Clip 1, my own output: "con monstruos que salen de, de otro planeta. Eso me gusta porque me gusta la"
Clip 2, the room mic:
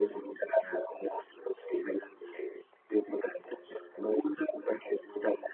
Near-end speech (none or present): none